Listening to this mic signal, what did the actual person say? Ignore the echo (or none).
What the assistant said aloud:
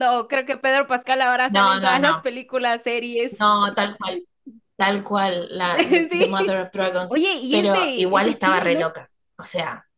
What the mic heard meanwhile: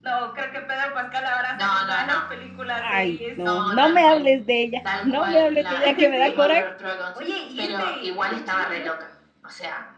ay, no, no me hables de ella, no me hables de ella que me da coraje.